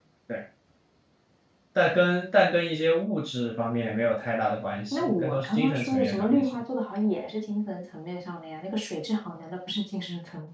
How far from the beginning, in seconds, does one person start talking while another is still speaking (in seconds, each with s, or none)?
4.9 s